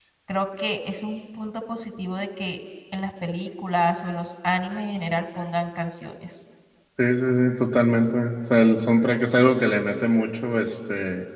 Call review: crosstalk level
none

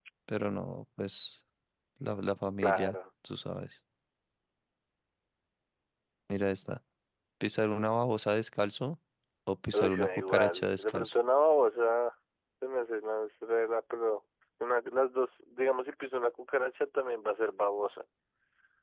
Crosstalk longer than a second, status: present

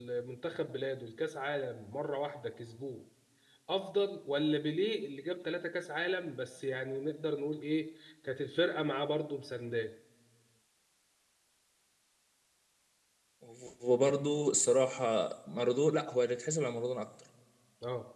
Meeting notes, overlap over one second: none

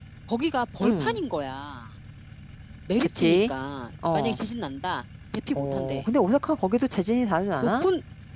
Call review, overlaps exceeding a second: none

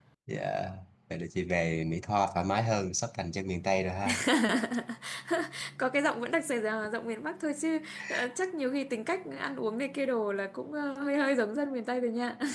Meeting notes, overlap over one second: none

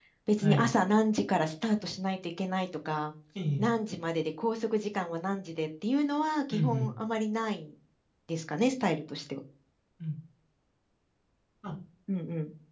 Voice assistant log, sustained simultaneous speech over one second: none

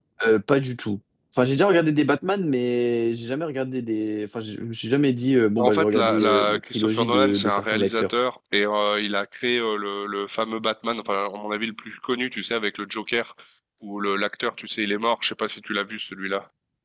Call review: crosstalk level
present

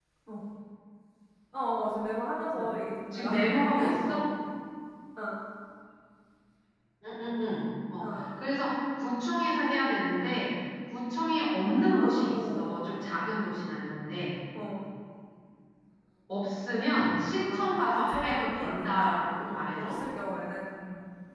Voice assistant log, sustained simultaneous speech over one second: present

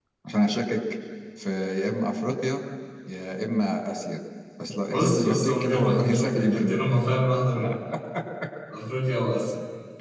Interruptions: present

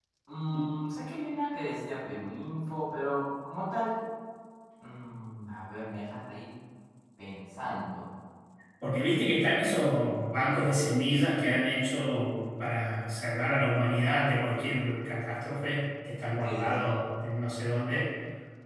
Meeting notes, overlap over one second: none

